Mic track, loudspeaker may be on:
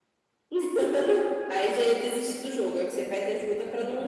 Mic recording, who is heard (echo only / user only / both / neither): echo only